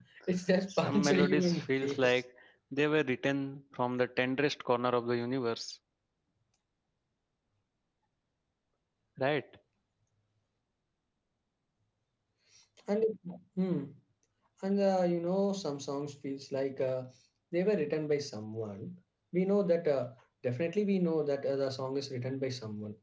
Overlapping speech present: Yes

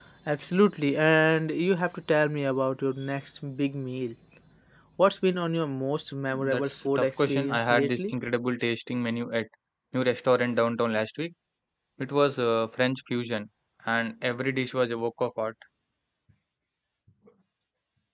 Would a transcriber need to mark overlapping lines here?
Yes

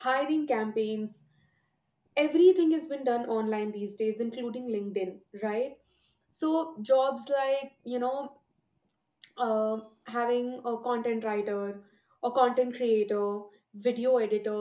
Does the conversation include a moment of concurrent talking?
No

